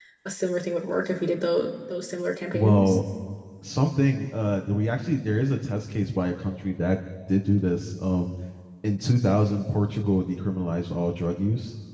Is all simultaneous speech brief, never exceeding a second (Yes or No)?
Yes